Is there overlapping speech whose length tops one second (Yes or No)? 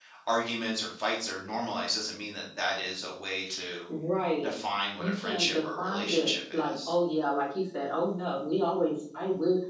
Yes